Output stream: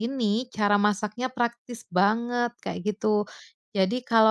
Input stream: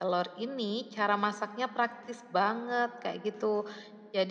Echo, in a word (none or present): present